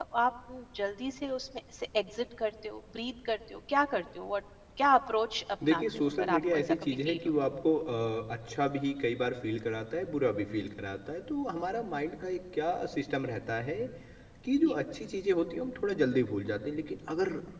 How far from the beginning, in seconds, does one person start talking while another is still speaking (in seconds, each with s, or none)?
5.6 s